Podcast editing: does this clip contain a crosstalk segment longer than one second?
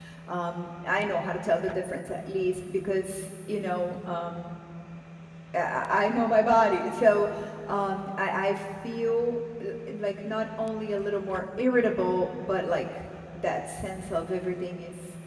No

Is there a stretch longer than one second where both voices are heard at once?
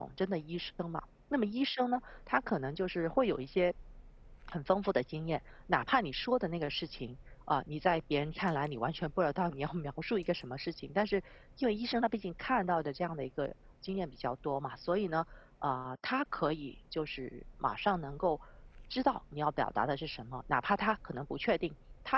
No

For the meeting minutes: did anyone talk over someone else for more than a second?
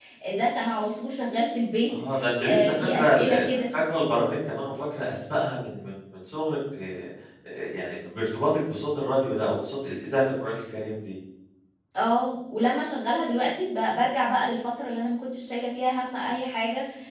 Yes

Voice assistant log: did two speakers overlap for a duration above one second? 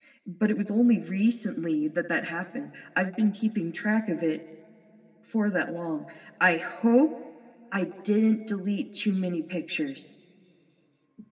No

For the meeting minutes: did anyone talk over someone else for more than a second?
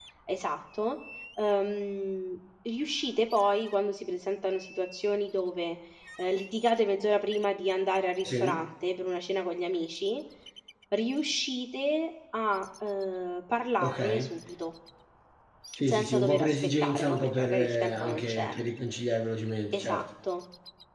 Yes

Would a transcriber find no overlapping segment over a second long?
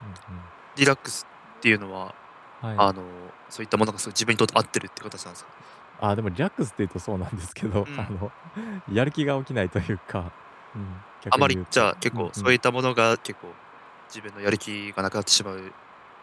No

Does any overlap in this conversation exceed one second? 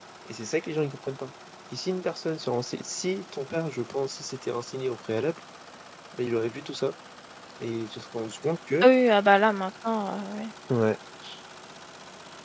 No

